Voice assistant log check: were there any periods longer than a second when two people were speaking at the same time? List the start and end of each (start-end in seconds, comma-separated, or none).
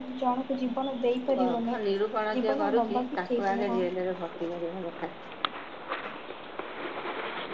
2.3-3.8